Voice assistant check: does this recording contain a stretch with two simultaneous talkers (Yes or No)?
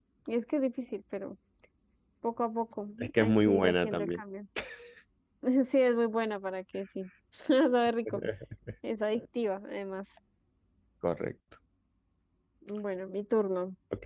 Yes